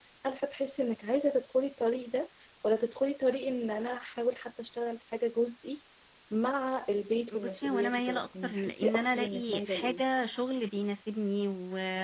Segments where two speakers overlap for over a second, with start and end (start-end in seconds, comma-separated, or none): 7.3-10.0